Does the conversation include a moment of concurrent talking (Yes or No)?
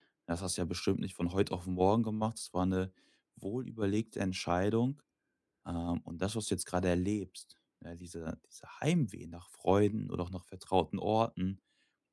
No